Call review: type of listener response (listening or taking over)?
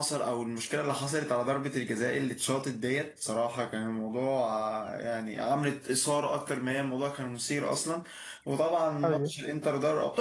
listening